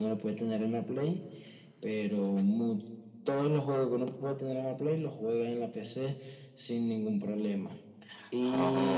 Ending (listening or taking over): listening